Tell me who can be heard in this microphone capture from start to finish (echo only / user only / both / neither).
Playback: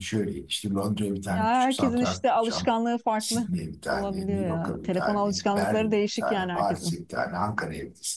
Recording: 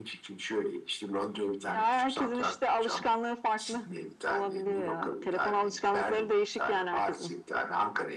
echo only